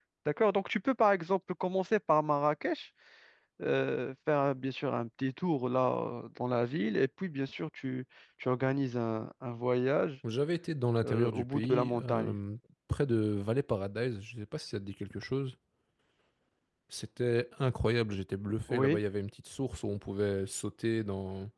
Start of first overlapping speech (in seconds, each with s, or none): 11.0 s